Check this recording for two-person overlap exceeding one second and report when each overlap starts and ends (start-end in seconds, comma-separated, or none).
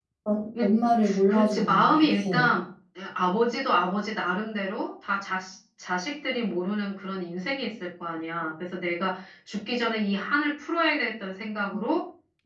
1.3-2.5